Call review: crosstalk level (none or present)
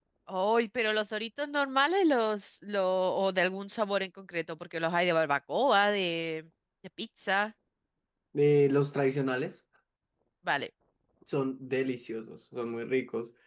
none